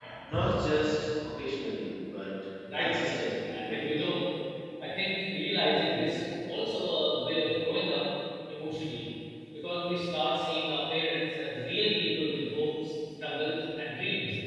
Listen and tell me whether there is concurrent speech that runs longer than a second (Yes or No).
Yes